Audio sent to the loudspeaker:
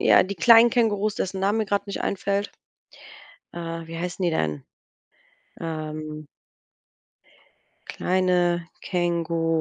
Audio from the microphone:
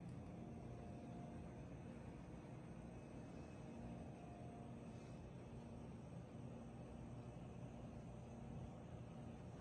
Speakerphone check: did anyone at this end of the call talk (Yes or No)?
No